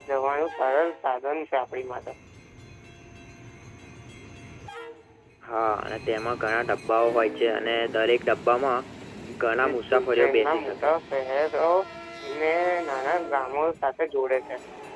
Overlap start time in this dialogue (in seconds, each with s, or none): 9.6 s